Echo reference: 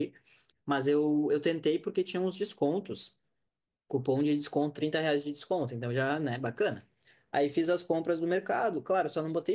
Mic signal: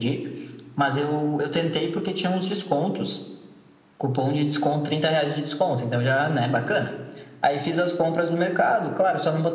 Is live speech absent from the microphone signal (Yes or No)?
Yes